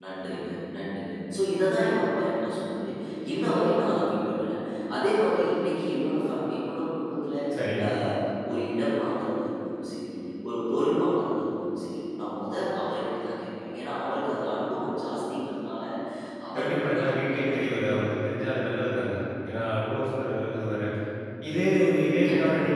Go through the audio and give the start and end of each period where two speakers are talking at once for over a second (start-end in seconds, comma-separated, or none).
16.6-18.0